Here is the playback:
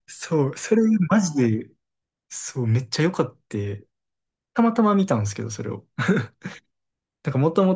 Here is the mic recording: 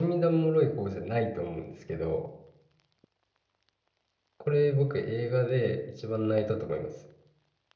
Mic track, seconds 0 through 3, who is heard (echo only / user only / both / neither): user only